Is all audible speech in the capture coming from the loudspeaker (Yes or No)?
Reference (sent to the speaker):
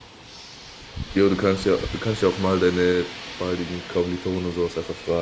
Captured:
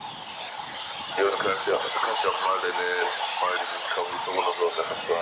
Yes